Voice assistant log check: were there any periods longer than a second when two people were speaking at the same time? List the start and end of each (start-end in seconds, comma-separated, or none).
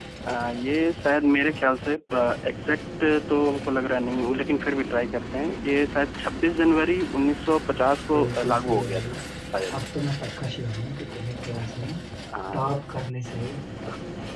7.2-9.1